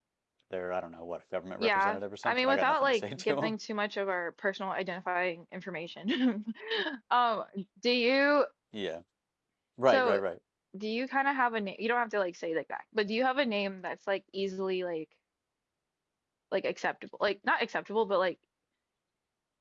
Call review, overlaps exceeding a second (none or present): present